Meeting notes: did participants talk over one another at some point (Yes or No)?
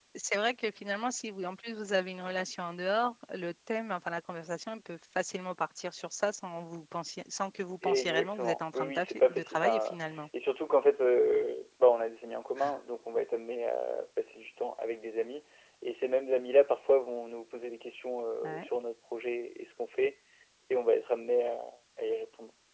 Yes